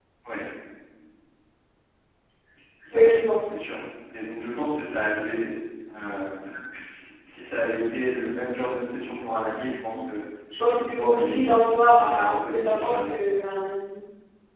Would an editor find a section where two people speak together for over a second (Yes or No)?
Yes